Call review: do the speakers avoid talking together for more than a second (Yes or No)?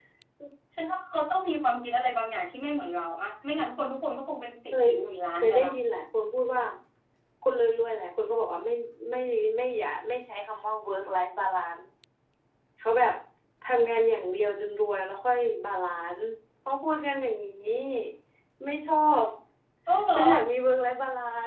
Yes